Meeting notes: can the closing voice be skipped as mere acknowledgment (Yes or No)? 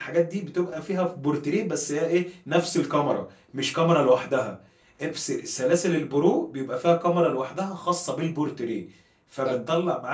No